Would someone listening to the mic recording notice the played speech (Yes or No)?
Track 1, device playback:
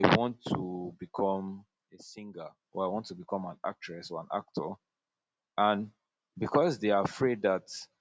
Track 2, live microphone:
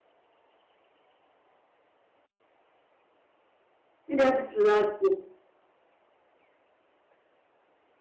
No